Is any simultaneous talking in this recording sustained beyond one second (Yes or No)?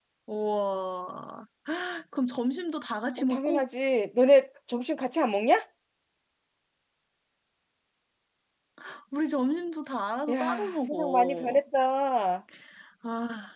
Yes